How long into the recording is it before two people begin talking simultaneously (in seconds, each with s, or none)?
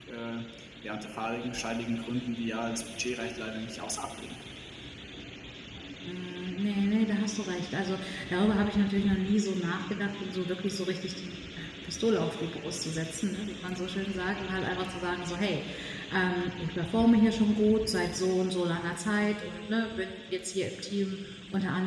none